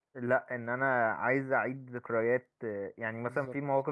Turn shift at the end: No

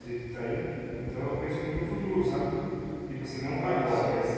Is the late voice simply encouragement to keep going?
Yes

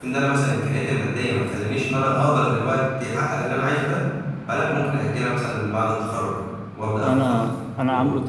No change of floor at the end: No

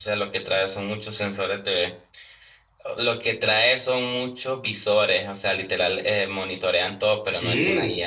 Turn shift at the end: Yes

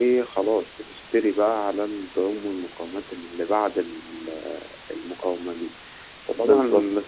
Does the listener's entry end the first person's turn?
No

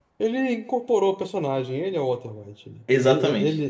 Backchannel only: Yes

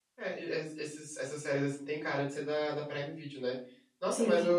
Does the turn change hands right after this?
No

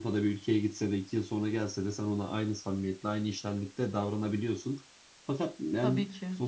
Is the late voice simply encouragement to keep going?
Yes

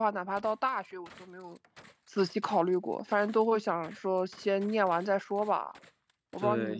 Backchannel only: No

